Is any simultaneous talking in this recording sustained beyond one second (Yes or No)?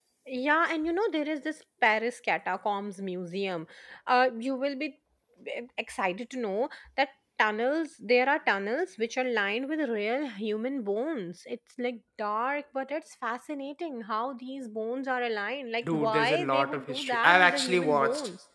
Yes